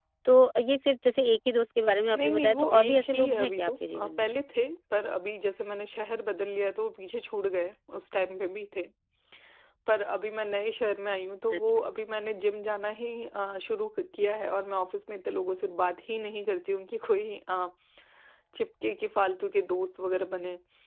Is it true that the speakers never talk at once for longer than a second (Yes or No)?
No